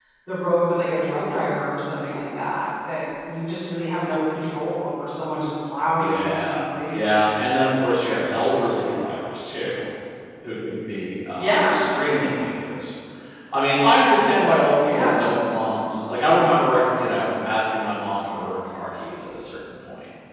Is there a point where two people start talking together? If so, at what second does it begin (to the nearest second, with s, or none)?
6 s